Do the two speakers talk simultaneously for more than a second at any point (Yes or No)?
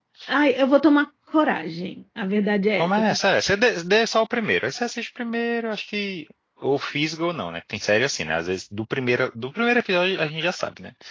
No